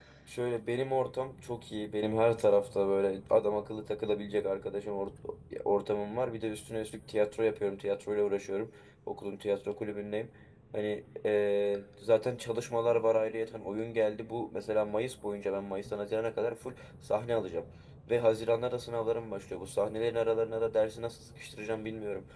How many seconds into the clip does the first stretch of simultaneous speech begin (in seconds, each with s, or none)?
none